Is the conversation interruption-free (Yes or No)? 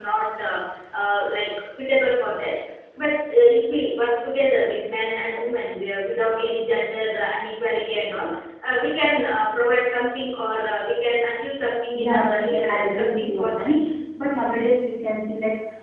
No